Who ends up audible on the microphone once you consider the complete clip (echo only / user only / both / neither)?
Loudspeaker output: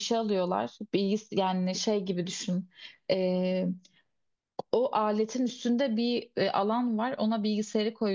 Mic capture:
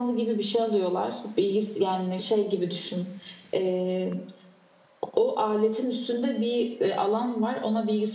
echo only